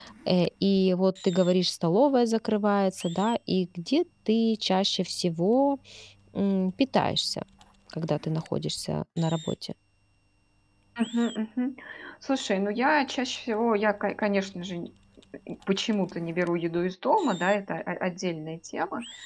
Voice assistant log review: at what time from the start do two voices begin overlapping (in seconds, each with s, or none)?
none